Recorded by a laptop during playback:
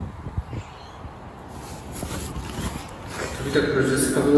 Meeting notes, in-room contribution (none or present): present